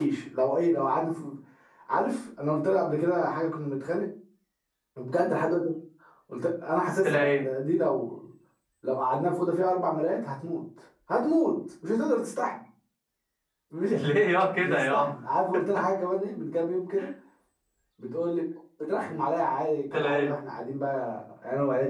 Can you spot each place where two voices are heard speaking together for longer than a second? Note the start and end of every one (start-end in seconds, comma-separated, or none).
none